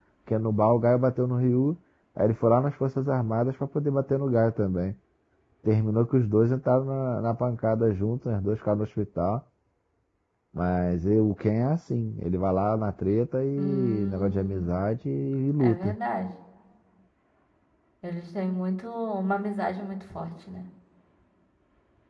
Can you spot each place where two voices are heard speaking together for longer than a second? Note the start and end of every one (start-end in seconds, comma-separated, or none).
13.6-14.8